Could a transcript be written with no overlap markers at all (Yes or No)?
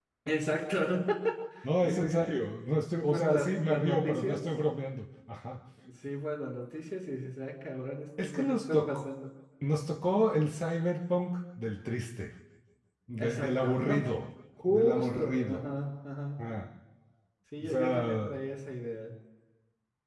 No